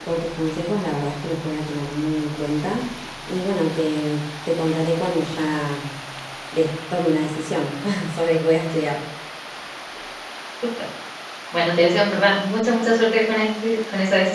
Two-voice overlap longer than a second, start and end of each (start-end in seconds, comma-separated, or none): none